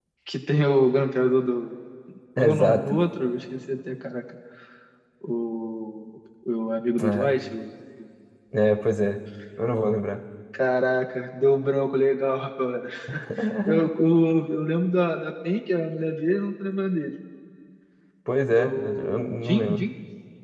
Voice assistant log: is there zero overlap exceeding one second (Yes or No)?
No